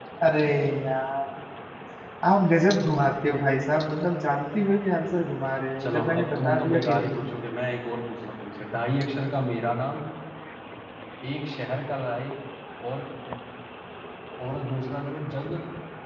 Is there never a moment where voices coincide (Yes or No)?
No